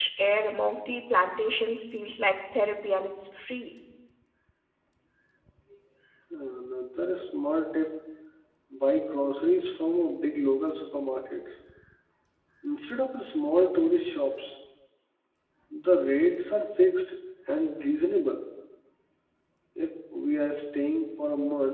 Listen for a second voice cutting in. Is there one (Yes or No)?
No